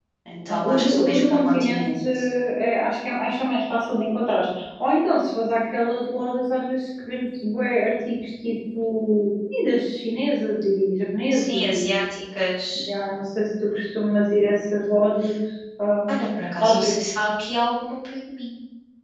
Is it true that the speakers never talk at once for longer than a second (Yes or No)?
No